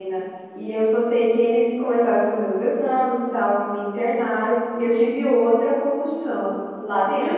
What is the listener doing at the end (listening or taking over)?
listening